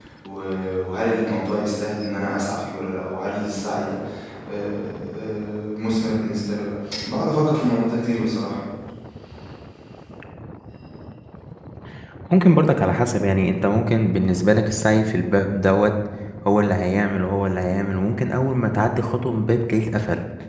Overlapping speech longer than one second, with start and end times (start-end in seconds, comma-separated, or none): none